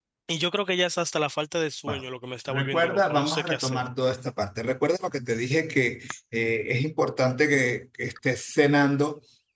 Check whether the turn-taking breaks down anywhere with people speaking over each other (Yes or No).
Yes